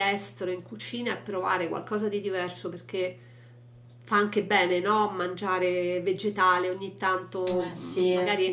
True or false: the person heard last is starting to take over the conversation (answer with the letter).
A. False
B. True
A